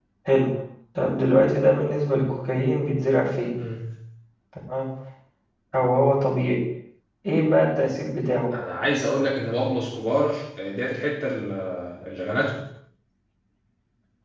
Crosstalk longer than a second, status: none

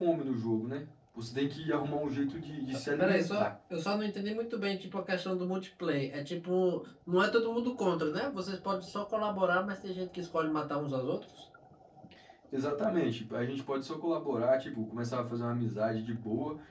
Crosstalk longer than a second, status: none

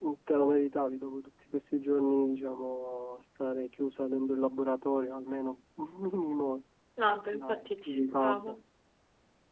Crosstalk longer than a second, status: present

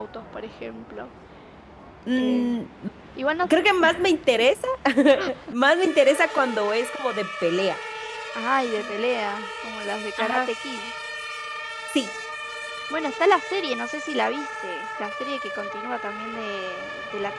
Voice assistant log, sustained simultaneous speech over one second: none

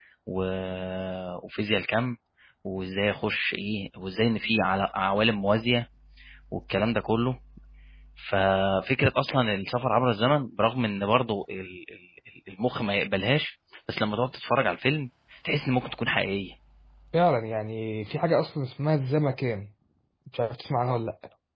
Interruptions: none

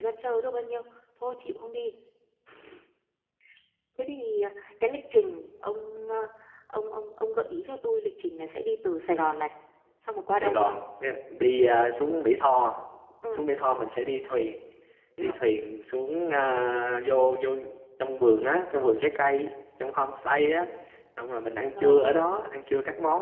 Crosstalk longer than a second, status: none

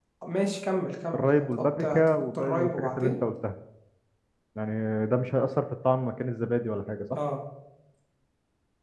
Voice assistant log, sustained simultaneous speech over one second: present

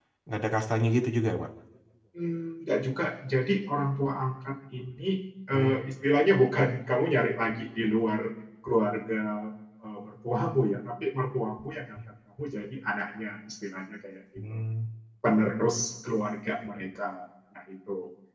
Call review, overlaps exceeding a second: none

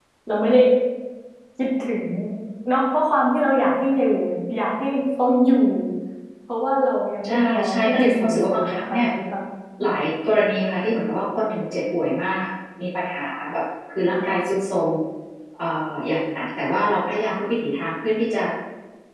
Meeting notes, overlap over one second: present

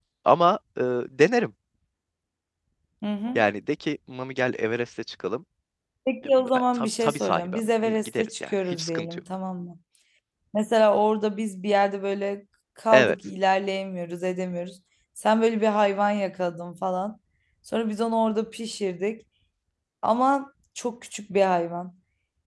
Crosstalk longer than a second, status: present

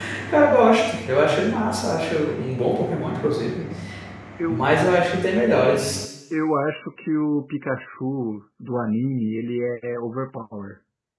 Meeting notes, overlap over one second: none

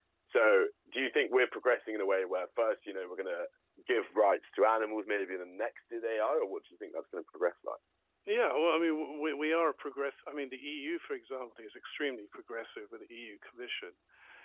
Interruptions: none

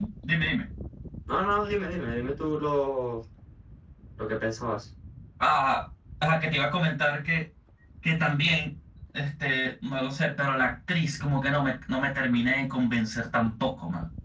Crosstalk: none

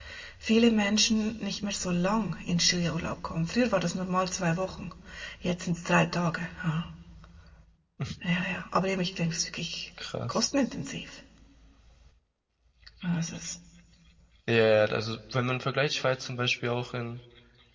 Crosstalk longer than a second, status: none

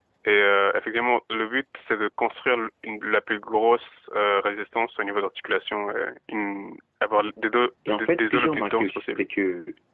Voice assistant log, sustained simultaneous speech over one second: present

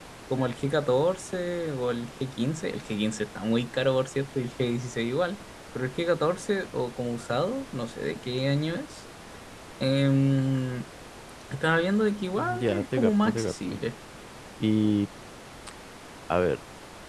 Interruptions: present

